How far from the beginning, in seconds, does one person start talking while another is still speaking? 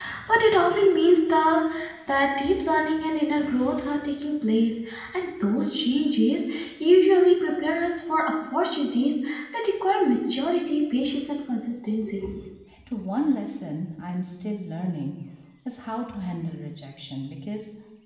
none

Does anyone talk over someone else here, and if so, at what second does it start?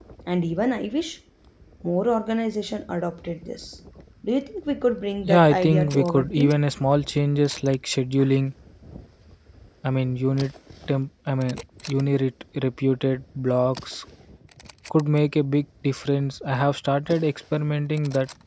5.2 s

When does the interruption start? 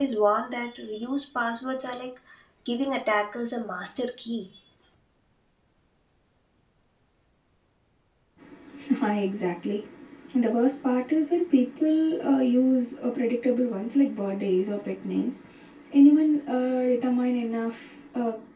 none

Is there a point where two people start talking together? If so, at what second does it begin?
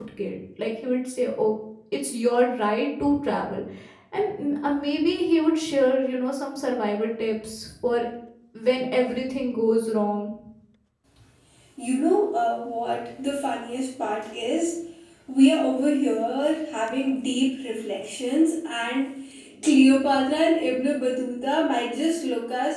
none

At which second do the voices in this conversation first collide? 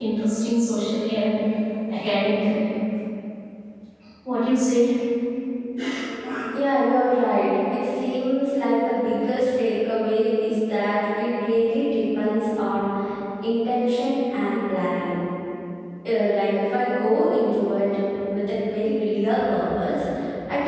none

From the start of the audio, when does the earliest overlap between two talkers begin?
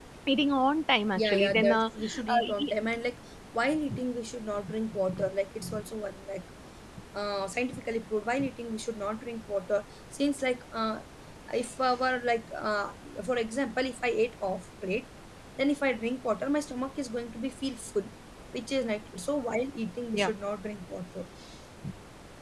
1.2 s

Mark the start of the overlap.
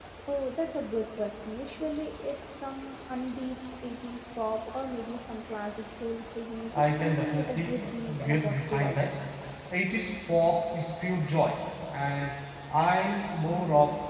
6.7 s

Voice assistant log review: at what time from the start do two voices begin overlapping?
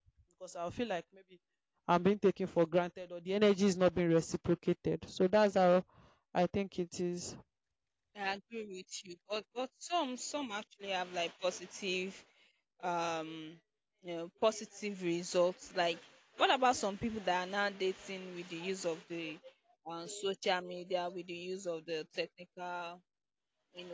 none

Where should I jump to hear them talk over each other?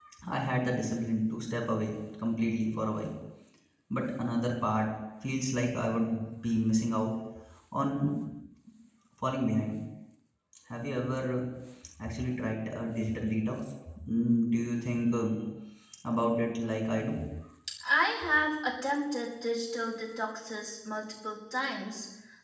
none

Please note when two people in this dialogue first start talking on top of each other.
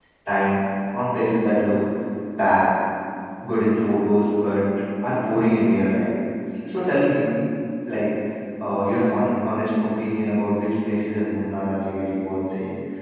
none

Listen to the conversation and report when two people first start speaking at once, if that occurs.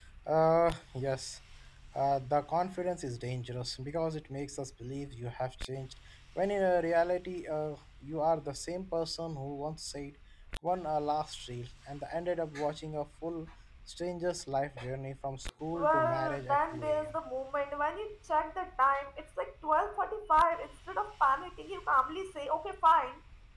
15.8 s

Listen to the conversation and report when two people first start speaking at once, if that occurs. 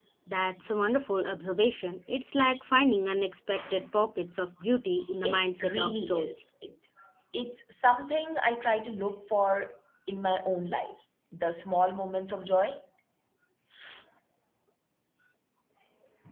5.2 s

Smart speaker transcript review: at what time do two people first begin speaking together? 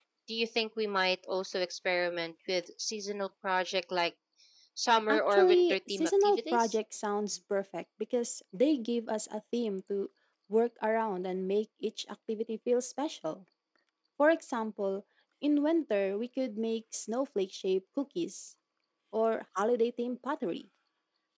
5.1 s

